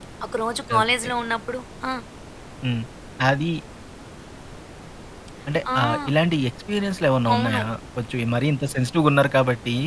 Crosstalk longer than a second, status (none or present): none